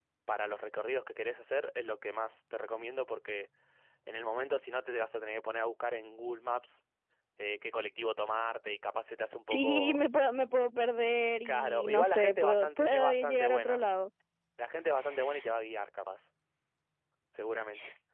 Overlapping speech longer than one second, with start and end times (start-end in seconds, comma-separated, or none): 11.4-13.8